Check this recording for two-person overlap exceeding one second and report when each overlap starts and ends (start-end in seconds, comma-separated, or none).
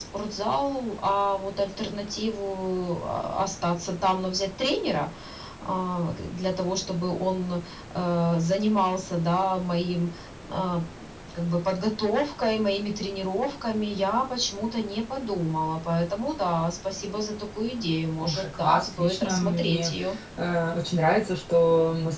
18.2-19.9